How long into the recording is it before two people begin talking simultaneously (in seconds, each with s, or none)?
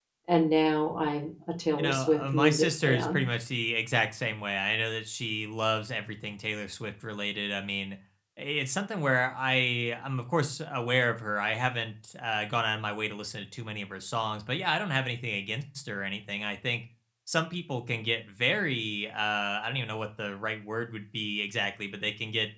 1.8 s